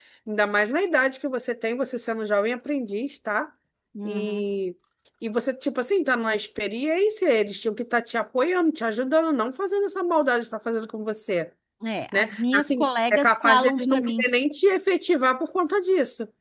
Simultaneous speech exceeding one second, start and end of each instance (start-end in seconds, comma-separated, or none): 12.1-14.2